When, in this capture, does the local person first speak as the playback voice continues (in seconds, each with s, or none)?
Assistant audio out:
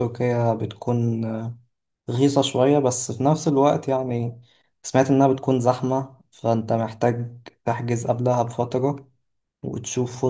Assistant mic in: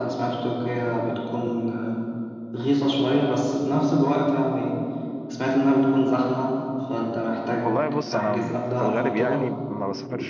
7.6 s